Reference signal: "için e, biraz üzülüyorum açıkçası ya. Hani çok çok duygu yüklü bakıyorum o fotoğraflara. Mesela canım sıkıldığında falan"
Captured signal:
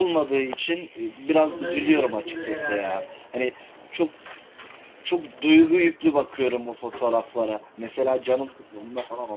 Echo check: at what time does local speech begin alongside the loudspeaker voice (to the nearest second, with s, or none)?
1 s